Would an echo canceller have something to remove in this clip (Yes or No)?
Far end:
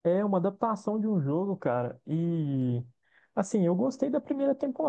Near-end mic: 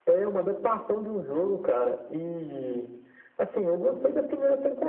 Yes